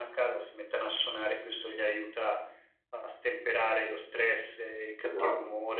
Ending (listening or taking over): listening